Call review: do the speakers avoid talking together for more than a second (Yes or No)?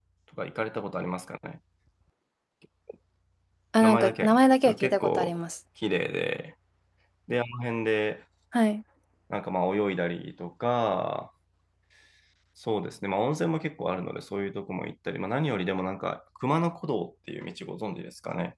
No